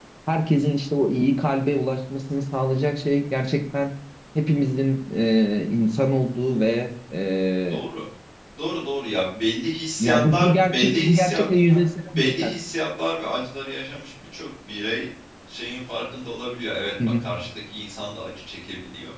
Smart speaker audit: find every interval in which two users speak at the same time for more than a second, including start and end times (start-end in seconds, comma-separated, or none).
10.0-12.5